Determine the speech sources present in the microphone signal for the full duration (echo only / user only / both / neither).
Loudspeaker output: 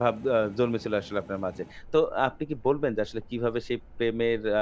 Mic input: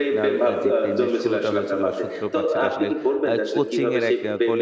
both